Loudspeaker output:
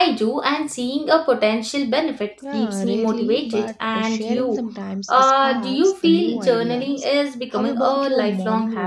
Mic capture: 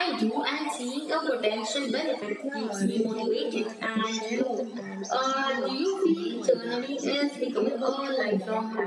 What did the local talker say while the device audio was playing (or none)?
none